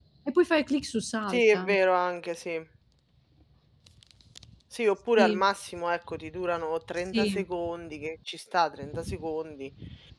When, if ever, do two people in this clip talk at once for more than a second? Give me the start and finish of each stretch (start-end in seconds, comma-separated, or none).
none